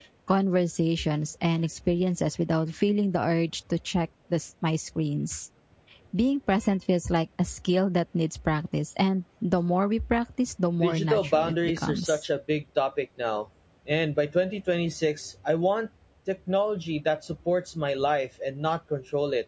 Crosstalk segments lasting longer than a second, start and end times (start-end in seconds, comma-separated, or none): 10.8-12.2